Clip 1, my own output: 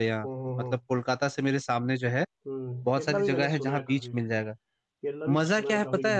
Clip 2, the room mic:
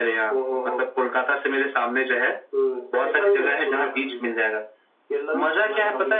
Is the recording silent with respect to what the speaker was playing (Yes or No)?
No